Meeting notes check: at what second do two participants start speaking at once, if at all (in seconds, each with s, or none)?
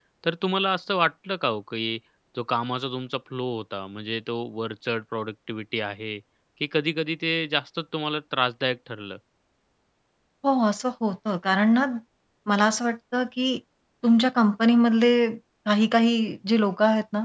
none